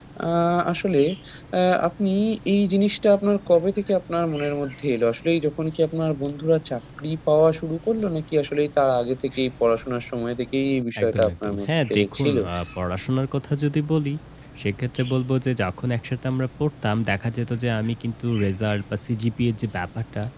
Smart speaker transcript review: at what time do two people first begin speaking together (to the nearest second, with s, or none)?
11 s